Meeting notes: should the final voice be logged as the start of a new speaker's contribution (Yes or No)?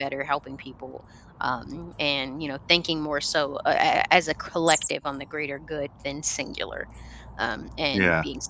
No